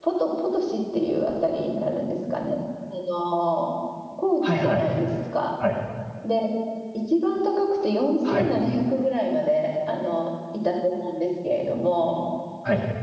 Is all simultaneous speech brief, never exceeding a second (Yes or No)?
Yes